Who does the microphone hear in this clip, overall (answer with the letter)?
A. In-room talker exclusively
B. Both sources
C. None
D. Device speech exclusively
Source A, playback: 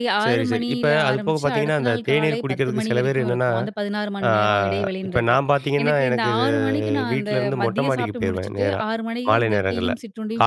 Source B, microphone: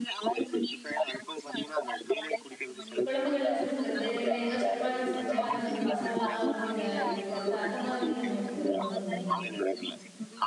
B